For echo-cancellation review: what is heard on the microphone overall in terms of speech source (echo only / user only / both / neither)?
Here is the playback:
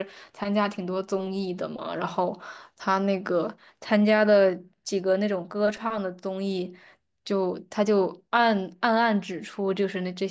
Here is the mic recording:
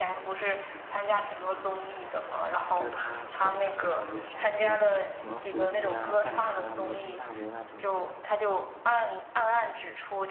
both